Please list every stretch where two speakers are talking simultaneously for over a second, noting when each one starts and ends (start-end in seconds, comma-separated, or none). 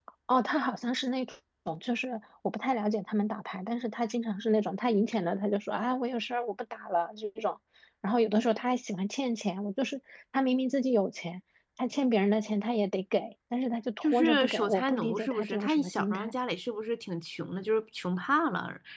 14.0-16.3